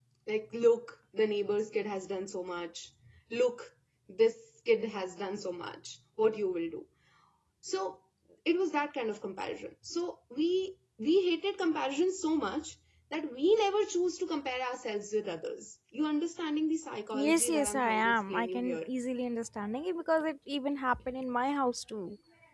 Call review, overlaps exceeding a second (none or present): present